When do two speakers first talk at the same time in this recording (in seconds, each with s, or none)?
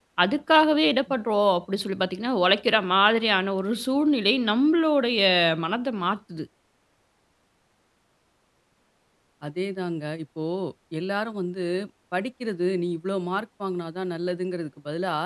none